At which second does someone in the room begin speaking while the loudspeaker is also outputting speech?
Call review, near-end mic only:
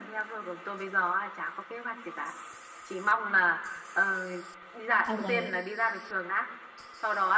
5.1 s

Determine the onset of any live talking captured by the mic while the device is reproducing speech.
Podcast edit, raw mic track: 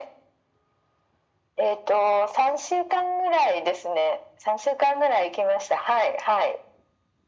none

